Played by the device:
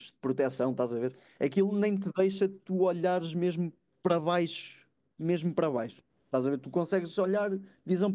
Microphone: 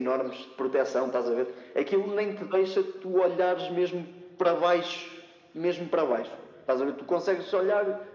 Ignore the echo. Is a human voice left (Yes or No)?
No